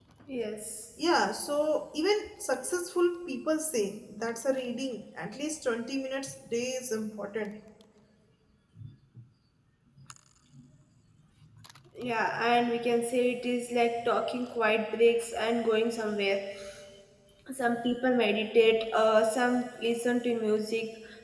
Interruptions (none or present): none